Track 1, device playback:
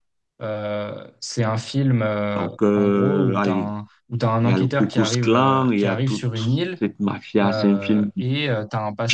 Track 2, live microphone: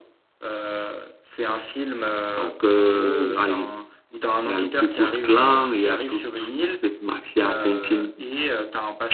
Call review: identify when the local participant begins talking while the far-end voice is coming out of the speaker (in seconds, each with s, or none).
none